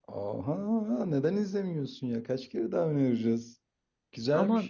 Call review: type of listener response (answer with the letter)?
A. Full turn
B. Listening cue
A